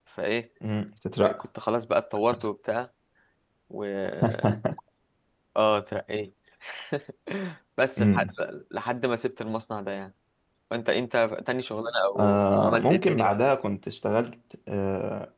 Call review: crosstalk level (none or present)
present